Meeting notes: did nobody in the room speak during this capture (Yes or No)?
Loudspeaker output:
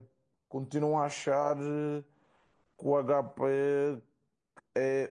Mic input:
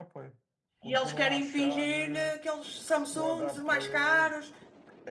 No